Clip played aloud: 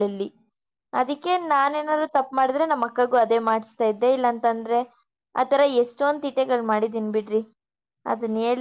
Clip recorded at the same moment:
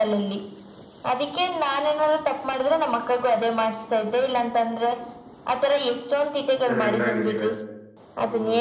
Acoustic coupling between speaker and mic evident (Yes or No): Yes